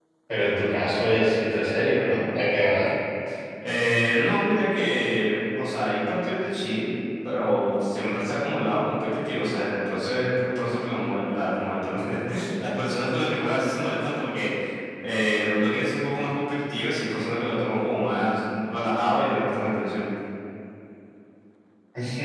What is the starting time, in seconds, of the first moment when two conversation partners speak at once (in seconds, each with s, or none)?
none